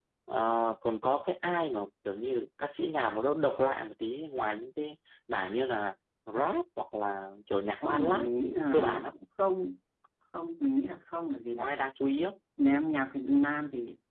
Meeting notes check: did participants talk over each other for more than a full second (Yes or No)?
Yes